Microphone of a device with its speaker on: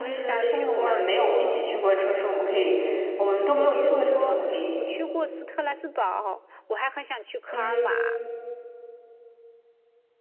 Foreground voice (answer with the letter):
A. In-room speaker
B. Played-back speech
A